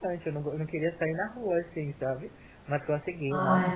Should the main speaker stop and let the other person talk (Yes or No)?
No